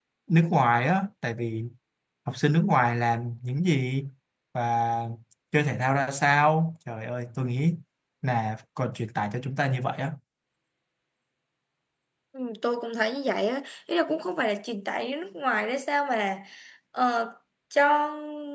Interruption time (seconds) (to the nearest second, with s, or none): none